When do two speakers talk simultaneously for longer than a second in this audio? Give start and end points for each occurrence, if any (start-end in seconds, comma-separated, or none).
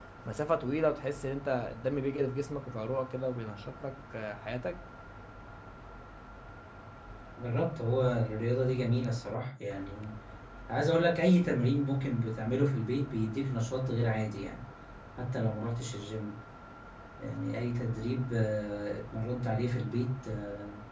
none